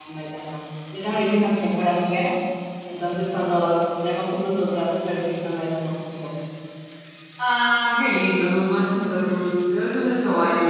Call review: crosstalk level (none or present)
none